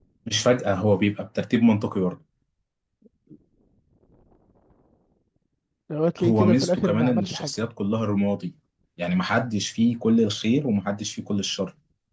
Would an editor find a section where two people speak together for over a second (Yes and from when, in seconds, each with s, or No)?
Yes, from 6.2 s